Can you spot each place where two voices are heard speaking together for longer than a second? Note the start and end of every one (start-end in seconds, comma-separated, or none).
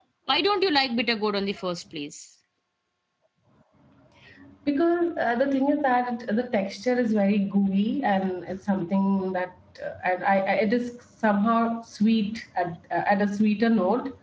none